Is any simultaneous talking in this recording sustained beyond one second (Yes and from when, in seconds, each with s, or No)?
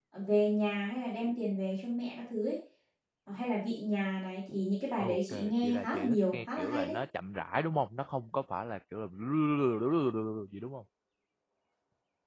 Yes, from 5.0 s